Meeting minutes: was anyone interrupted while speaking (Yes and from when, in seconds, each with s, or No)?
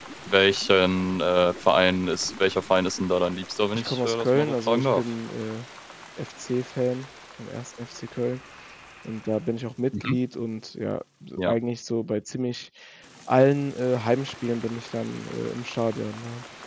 Yes, from 3.7 s